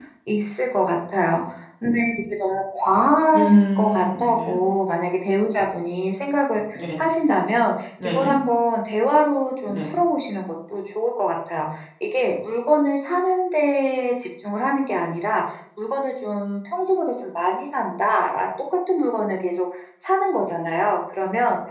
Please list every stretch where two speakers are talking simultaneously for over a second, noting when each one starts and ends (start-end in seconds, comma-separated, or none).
3.4-4.6